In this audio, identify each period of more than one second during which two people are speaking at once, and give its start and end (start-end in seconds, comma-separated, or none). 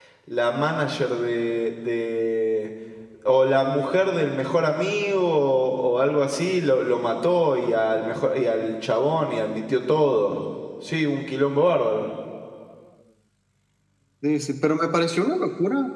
none